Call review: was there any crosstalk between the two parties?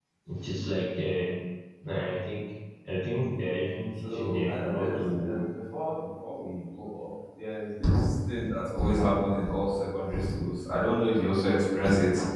Yes, from 4.0 s

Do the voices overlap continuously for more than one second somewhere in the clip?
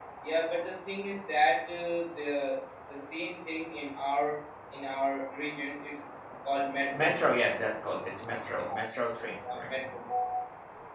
No

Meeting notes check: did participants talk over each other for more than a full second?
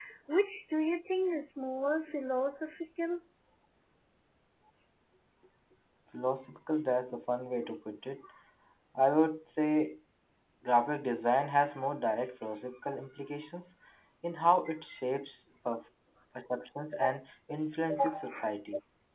No

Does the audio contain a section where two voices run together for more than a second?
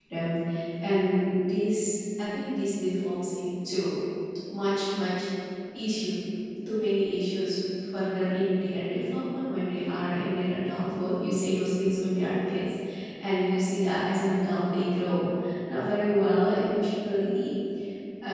No

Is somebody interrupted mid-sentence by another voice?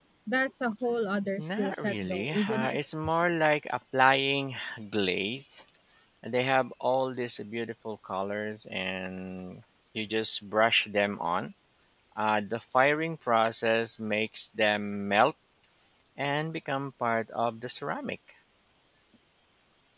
Yes, from 1.4 s

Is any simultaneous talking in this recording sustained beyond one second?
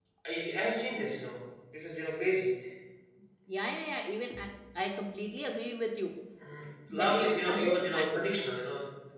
Yes, from 7.0 s

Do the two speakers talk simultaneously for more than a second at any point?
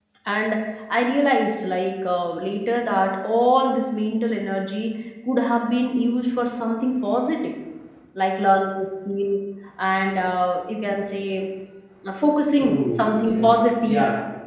Yes, from 12.6 s

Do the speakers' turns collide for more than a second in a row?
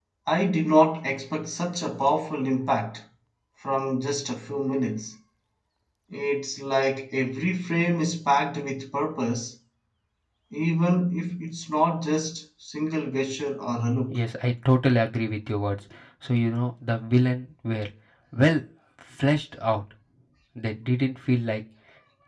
No

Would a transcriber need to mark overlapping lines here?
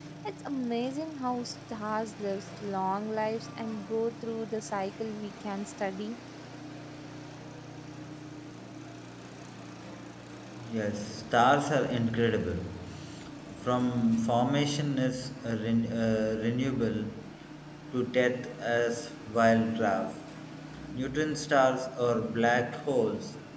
No

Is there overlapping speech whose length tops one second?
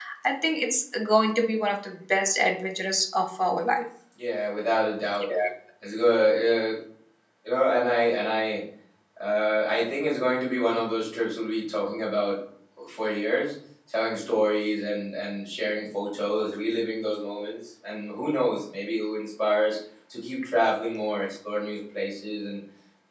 No

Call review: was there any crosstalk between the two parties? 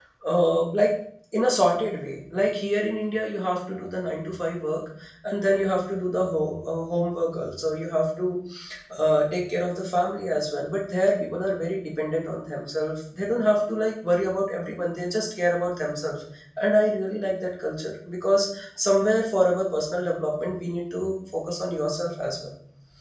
No

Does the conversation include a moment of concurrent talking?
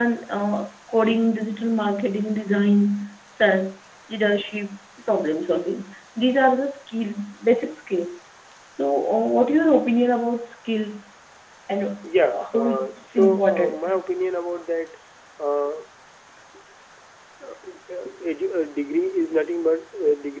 Yes, from 12.0 s

